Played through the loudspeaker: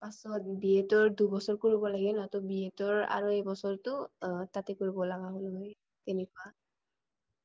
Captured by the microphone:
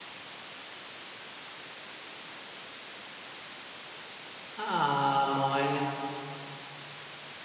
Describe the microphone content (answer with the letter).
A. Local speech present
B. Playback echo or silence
A